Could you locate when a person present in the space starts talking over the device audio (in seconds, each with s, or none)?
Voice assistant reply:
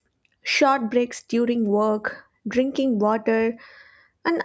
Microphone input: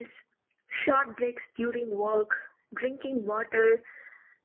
none